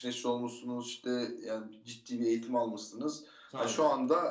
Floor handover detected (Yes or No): No